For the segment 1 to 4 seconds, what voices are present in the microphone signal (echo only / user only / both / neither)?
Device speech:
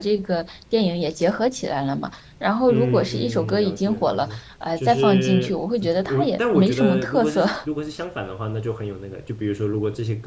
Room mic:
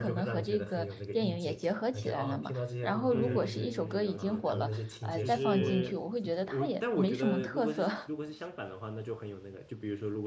both